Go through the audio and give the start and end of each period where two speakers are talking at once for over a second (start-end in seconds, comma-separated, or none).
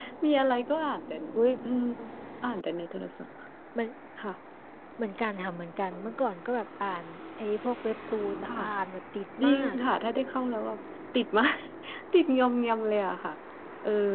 none